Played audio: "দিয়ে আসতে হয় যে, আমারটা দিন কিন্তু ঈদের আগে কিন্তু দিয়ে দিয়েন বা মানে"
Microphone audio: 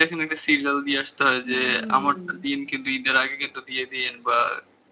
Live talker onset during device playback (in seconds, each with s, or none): 1.4 s